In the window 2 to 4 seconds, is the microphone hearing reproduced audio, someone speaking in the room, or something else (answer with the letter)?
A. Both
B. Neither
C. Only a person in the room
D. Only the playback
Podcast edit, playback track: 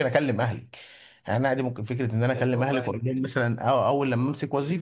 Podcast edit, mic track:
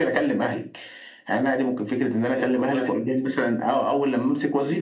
D